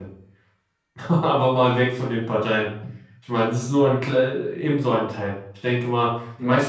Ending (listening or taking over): listening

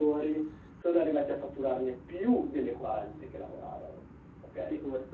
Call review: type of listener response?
taking over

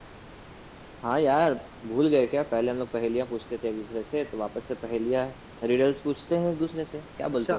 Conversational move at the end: taking over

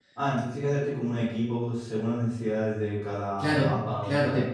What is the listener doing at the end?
taking over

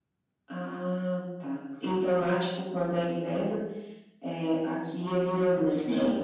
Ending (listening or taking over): taking over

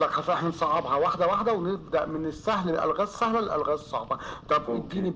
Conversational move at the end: listening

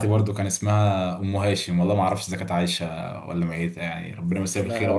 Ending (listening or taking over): taking over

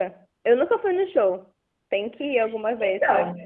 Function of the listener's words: taking over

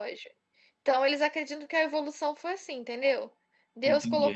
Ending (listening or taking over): listening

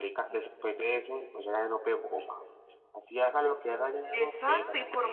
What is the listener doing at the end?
taking over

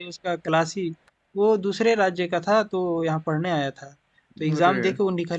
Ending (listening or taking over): listening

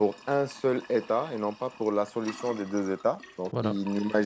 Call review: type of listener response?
listening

